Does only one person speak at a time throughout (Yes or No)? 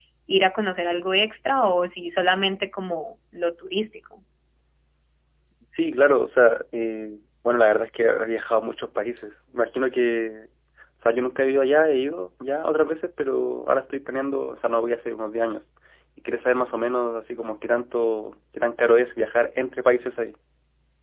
Yes